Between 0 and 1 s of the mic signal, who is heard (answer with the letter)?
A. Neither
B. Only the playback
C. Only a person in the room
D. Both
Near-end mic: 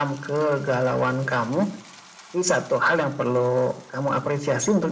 B